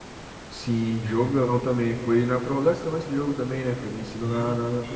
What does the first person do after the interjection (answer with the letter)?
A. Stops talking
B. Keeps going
A